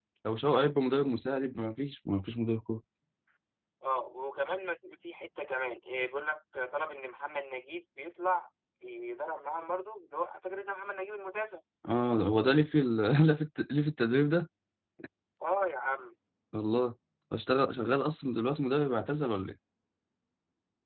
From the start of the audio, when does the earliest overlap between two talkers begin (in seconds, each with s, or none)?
none